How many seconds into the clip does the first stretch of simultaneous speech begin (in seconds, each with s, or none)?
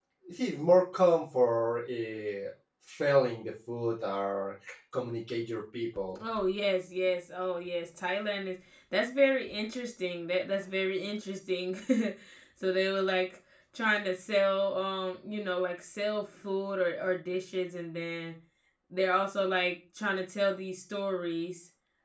none